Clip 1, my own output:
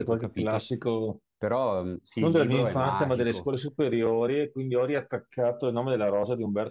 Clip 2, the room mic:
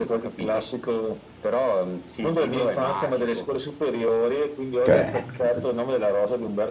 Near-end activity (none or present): present